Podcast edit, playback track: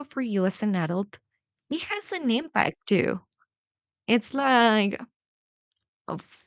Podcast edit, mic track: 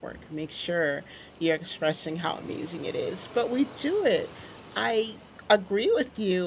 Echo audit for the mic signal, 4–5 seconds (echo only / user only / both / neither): user only